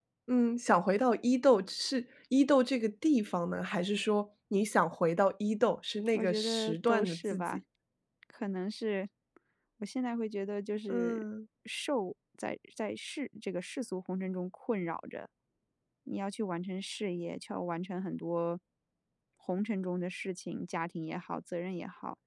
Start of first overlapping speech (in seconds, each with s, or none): 6.2 s